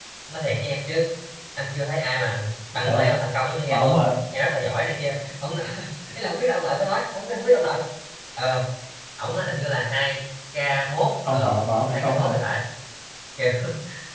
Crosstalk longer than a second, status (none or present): none